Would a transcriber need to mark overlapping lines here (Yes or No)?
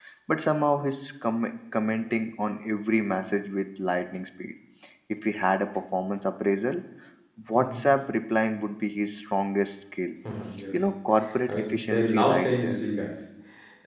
Yes